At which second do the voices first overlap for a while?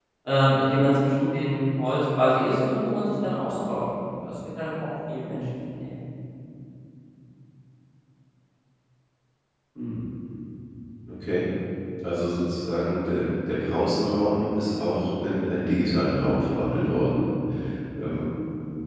none

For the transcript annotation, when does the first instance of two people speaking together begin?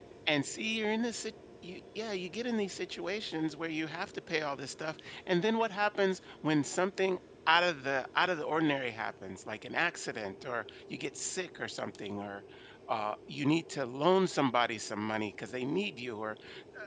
none

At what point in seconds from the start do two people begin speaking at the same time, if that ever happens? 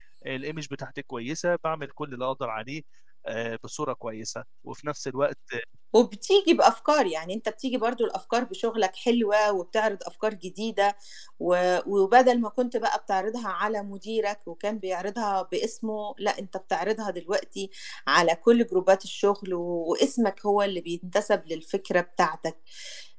none

